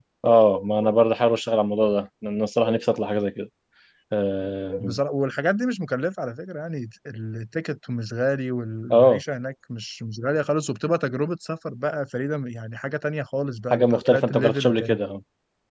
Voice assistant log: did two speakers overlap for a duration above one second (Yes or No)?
Yes